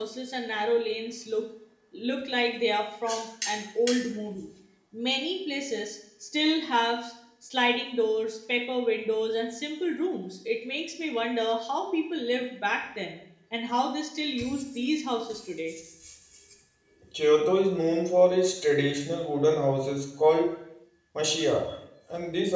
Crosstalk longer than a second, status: none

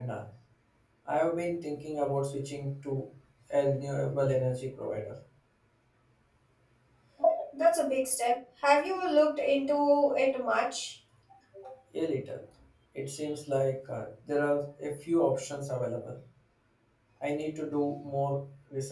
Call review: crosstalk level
none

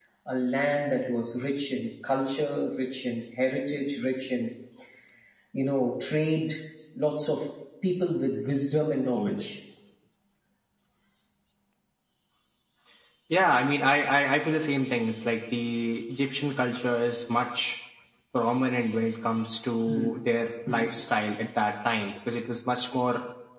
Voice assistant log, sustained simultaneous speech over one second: none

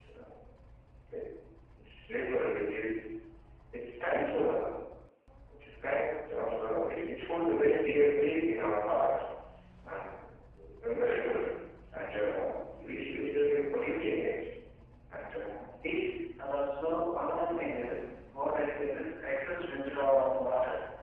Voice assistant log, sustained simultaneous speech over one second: none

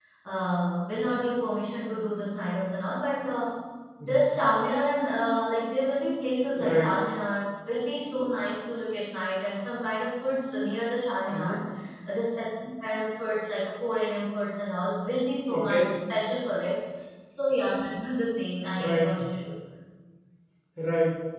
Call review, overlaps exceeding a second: none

